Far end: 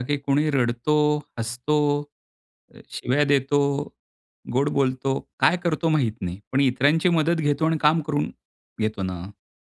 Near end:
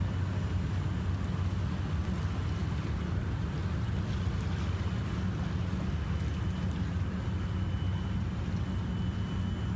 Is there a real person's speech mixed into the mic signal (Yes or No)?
No